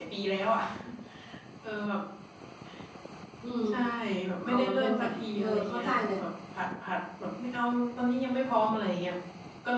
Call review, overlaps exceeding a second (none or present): present